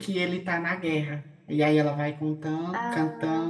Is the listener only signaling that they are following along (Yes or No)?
Yes